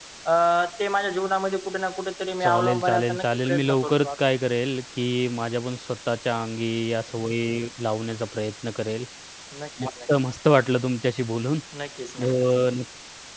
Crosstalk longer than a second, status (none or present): present